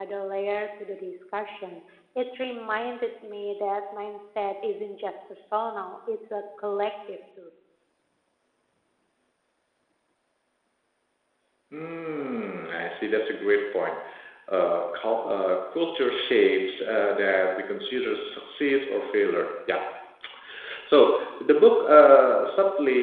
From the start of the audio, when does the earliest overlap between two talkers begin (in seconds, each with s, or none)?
none